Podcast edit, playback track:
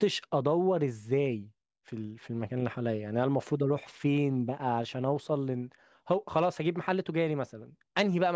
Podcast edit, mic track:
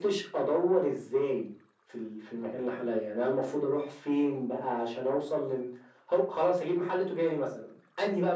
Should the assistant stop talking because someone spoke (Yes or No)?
No